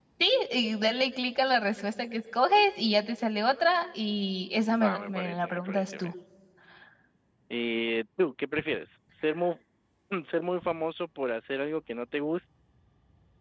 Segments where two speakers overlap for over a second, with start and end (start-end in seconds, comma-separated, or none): 4.8-6.1